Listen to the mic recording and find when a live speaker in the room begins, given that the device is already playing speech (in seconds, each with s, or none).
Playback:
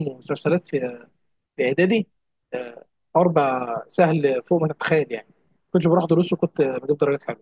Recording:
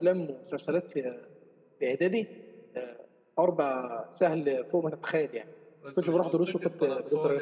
5.8 s